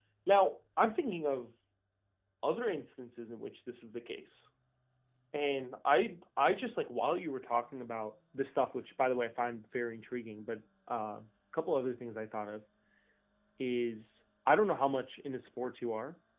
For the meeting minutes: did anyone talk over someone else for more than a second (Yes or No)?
No